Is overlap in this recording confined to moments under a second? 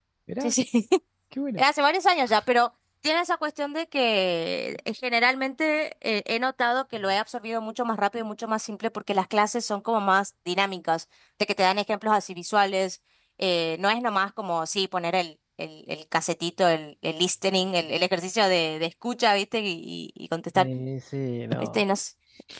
Yes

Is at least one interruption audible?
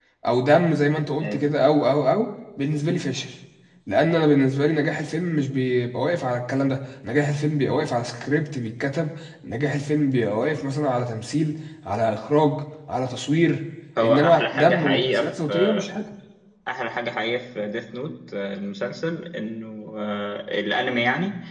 Yes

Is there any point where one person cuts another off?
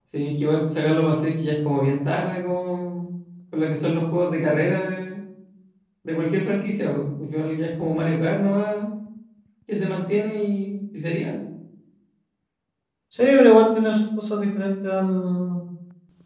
No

